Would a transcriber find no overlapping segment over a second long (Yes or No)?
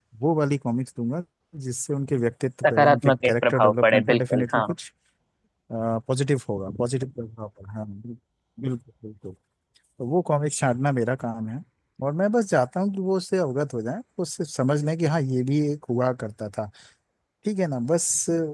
No